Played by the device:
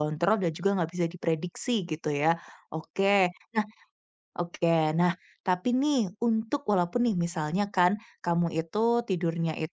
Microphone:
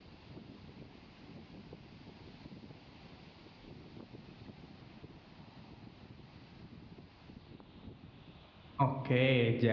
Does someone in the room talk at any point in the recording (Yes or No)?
Yes